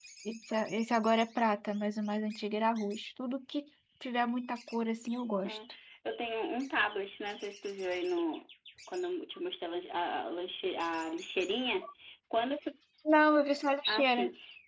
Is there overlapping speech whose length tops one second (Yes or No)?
No